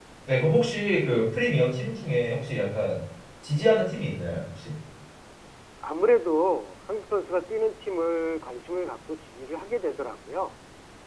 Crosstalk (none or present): none